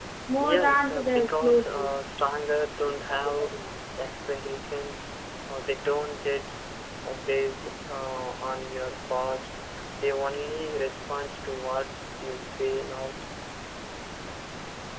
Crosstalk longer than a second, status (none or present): present